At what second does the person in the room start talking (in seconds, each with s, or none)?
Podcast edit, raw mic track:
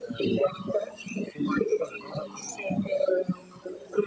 none